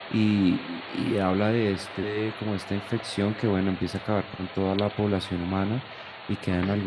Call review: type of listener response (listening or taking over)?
listening